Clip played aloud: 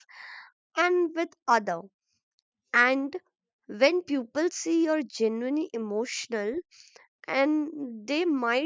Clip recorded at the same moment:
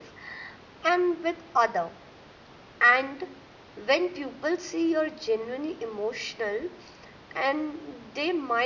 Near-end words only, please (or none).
none